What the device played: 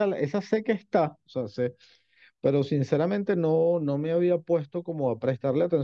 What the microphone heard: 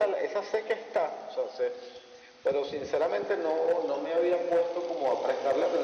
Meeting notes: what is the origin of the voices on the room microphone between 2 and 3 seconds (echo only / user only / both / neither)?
echo only